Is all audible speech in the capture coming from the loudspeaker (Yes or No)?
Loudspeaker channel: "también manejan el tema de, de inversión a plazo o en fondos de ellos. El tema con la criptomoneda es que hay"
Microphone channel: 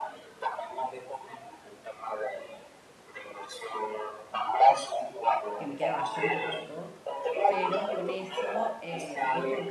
No